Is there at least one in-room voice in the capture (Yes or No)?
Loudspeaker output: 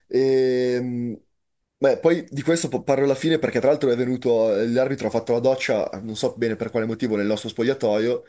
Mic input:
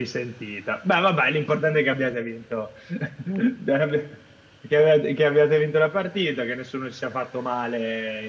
Yes